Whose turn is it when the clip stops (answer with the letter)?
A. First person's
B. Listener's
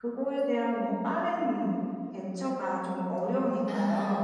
B